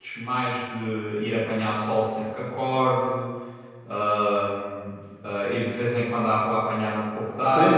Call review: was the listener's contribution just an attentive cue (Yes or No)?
No